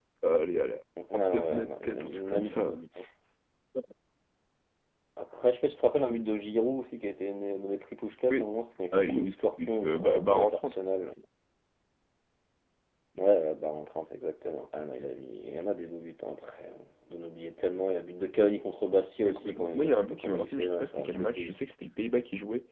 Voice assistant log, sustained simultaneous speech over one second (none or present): present